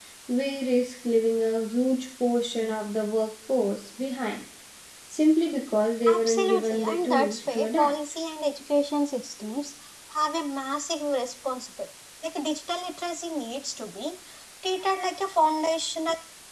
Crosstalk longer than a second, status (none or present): present